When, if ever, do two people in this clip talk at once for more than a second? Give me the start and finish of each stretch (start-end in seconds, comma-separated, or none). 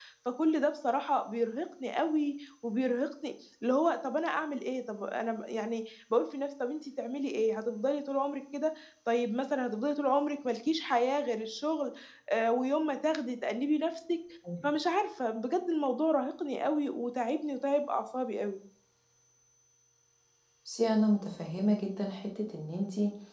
none